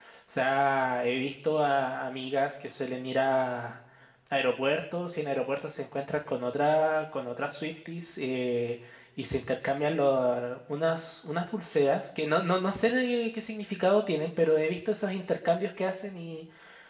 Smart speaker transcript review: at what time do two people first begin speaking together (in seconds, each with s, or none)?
none